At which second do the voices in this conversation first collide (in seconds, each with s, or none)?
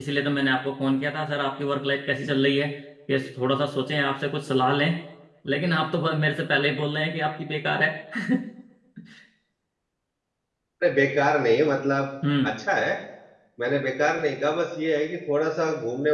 none